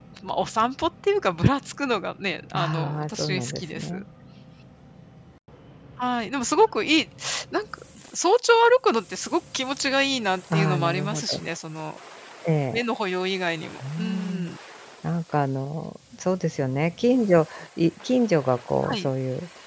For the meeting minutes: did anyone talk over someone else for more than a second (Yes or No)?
Yes